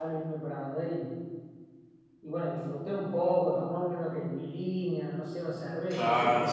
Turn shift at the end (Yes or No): Yes